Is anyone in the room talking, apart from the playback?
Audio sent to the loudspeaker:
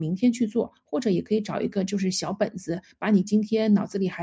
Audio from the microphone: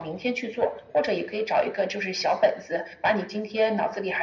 No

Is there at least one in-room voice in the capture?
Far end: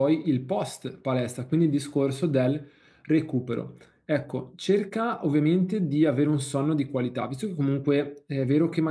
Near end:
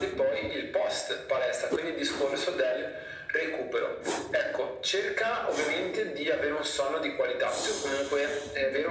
No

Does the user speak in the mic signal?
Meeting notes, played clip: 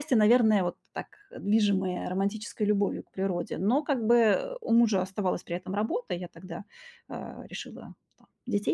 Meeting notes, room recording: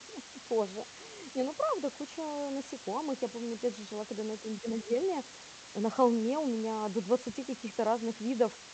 Yes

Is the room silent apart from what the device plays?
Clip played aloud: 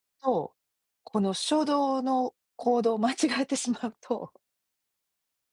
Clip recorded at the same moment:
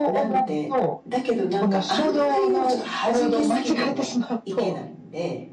No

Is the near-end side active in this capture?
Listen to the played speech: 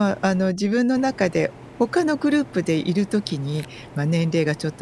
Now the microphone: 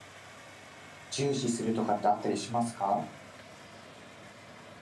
Yes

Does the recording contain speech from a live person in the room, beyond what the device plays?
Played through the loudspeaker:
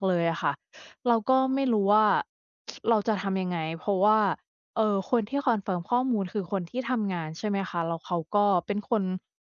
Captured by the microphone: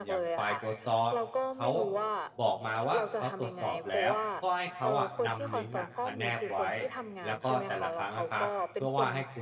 Yes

